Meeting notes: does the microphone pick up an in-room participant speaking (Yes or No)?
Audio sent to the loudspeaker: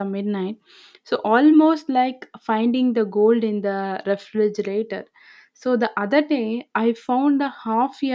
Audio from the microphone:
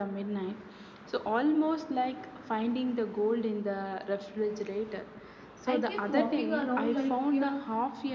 Yes